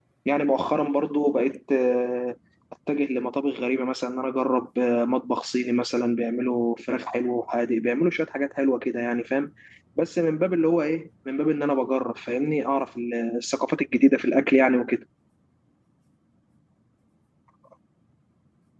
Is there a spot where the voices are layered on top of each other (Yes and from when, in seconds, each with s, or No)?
No